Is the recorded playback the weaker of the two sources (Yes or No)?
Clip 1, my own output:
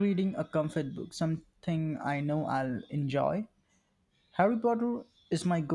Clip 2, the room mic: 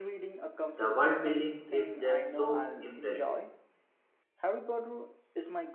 Yes